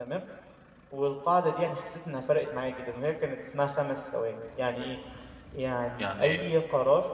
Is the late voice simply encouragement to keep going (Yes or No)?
Yes